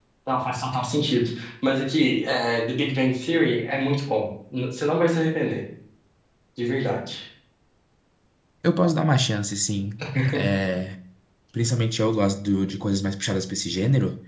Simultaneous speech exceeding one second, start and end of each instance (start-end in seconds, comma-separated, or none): none